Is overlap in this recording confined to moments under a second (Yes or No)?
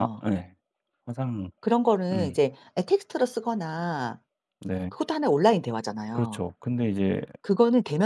Yes